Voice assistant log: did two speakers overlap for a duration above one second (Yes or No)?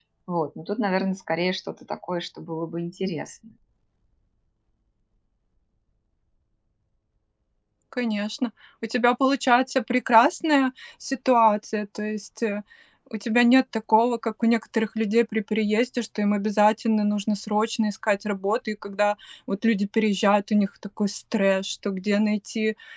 No